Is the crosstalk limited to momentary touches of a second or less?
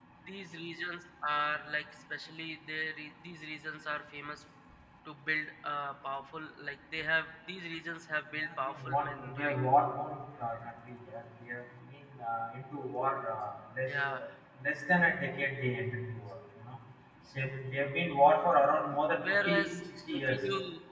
No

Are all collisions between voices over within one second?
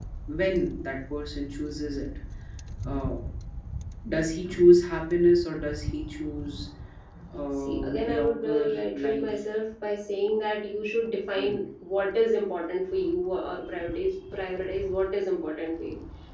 No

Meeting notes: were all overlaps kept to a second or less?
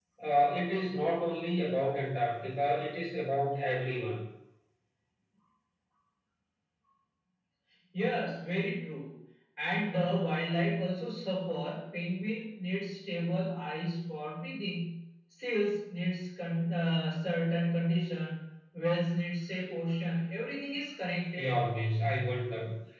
Yes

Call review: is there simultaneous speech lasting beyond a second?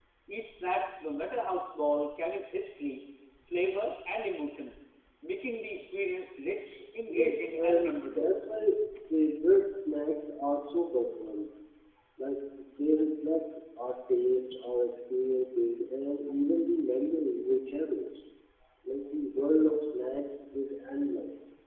Yes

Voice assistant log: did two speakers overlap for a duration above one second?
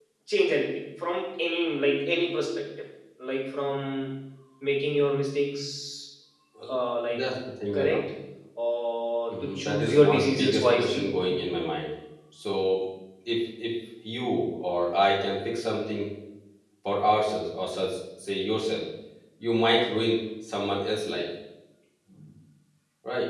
Yes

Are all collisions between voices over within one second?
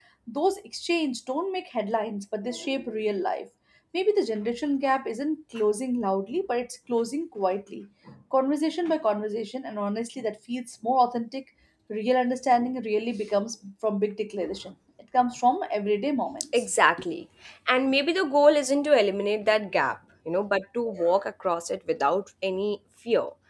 Yes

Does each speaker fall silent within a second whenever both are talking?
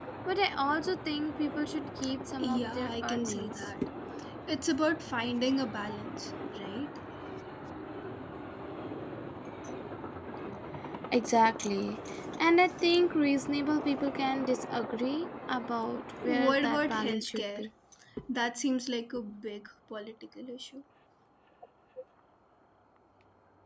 No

